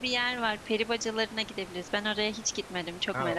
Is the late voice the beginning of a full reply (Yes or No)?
Yes